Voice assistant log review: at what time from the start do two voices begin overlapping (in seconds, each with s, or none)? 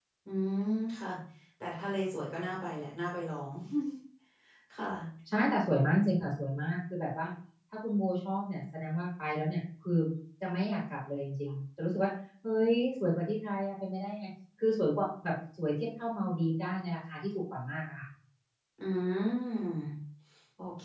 none